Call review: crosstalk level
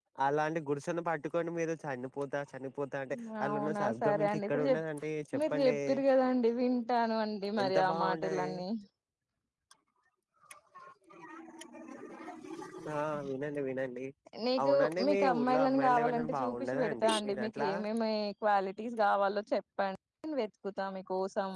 present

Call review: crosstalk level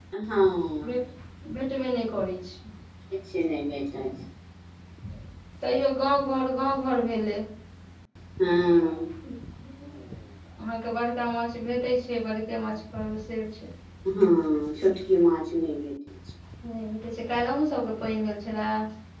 none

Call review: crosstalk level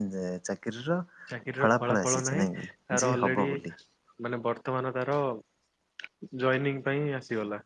present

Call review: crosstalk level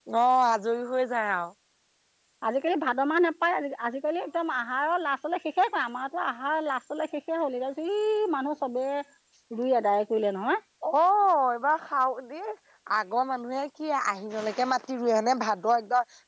none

